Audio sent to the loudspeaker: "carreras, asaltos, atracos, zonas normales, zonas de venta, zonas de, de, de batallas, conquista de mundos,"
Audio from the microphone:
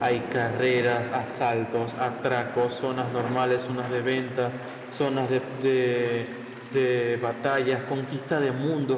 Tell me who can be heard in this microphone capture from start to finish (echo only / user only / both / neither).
echo only